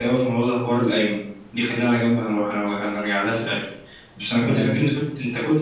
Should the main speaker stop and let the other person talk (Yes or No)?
No